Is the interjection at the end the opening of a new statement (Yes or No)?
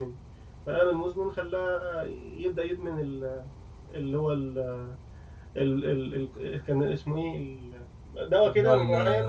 Yes